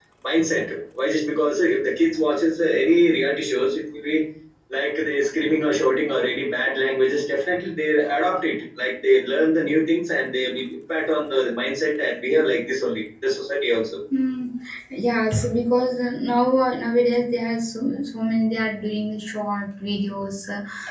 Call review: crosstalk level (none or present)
none